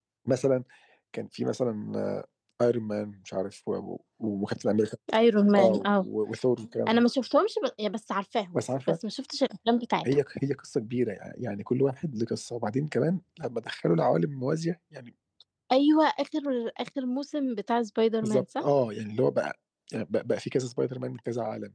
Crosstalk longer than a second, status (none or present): none